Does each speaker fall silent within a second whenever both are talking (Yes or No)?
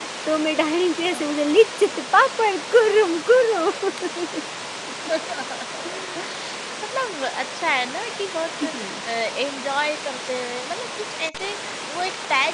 Yes